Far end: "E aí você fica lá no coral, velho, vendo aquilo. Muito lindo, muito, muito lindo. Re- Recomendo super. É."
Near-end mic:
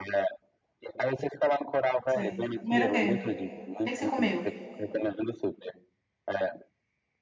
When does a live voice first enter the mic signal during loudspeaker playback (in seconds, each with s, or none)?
2.1 s